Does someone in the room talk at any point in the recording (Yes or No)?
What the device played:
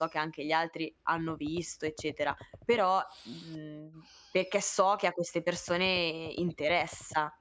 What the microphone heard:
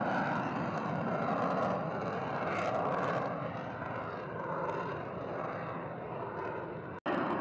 No